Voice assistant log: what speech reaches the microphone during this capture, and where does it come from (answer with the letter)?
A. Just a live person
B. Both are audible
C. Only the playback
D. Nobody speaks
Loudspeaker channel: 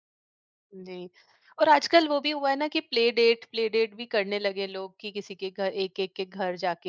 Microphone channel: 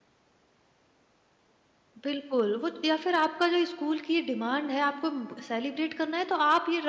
A